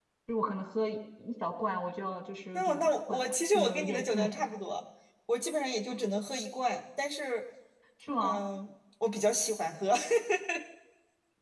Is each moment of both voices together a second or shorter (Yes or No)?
No